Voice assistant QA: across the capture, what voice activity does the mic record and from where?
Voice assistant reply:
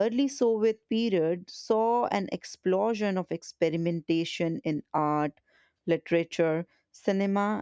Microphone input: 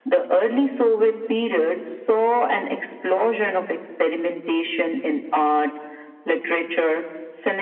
echo only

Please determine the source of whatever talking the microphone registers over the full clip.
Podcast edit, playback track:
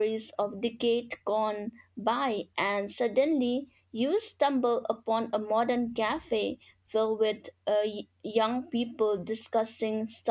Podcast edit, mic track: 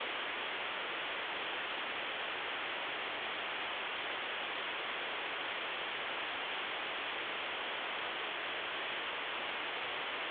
neither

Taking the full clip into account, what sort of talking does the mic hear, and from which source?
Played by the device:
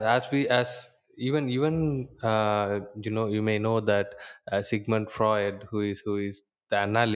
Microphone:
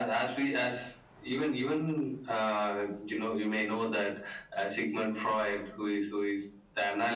echo only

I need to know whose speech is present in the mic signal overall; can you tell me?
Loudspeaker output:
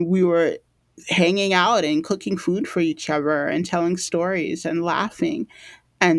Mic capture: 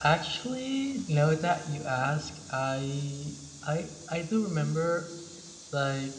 user only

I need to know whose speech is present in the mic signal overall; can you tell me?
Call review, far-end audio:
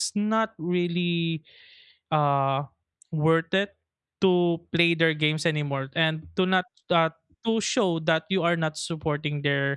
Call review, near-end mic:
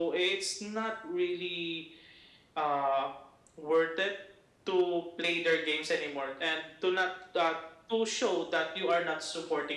echo only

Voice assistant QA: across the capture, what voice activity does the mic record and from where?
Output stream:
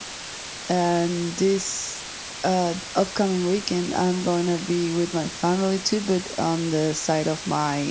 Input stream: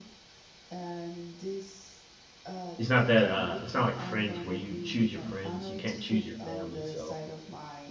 both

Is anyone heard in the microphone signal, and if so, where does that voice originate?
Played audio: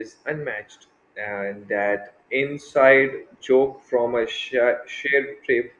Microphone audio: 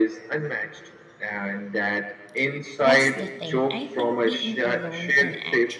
both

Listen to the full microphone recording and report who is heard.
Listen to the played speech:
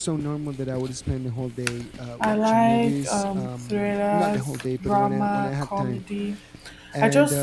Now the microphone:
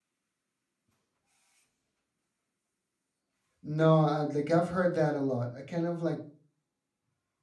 user only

